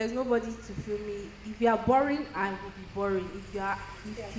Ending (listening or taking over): listening